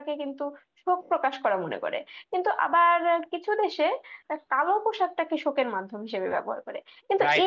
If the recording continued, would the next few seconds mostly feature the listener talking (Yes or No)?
Yes